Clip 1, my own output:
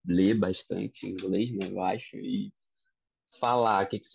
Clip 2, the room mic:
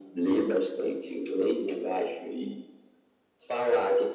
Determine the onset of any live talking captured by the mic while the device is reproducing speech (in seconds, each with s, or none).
none